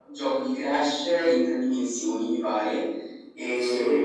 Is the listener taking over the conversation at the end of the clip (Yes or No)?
No